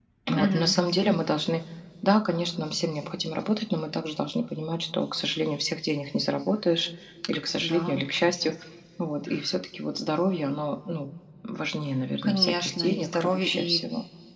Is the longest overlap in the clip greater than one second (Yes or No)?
Yes